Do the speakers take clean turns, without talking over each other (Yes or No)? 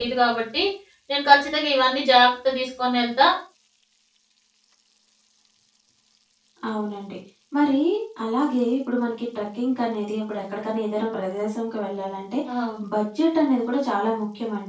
Yes